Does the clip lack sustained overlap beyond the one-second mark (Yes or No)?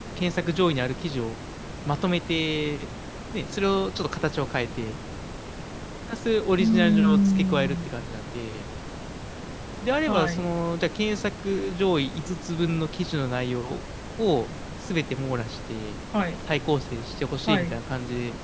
No